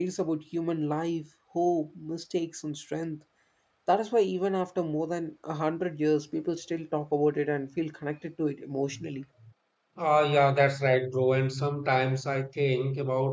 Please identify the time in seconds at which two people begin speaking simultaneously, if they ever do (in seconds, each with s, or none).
none